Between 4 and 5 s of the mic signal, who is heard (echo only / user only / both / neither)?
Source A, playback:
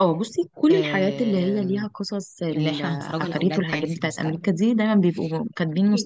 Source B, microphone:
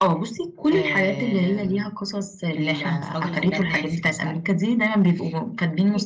echo only